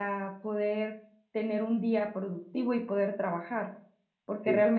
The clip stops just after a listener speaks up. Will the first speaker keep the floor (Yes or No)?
Yes